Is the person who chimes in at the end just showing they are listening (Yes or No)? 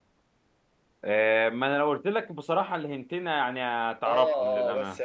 No